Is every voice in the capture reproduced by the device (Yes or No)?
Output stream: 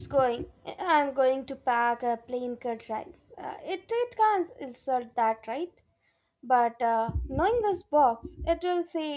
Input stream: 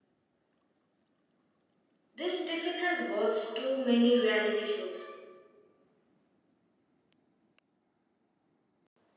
No